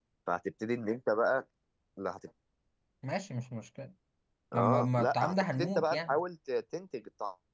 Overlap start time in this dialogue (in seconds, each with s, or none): 4.5 s